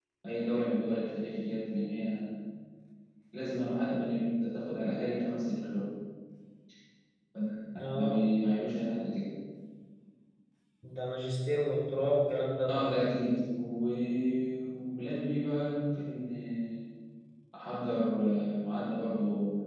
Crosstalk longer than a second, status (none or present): none